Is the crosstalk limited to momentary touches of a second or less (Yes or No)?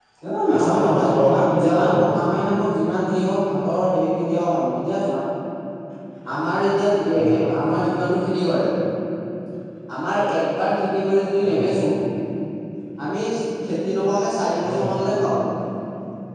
No